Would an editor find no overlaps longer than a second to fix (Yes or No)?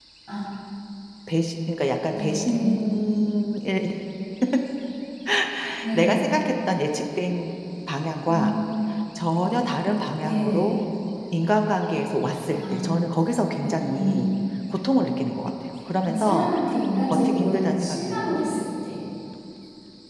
No